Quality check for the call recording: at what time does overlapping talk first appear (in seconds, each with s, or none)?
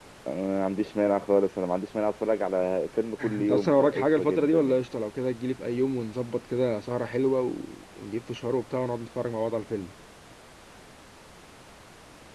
3.2 s